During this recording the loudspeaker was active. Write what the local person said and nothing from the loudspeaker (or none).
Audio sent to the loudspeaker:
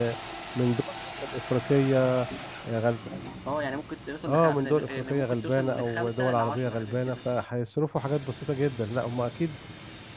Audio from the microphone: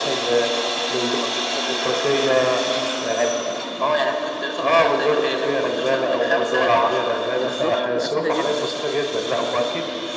بالظبط بتبقى سهله جدا